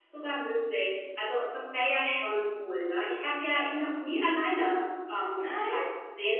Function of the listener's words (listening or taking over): listening